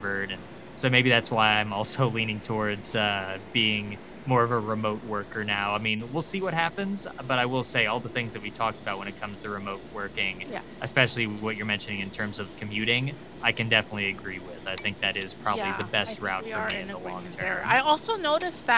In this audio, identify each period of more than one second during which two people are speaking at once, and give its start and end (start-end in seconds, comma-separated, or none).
15.5-17.8